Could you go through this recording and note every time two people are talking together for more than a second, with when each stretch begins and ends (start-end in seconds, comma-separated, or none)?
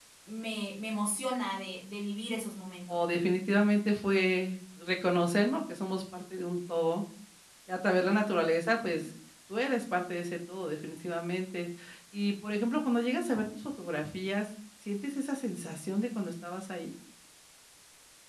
none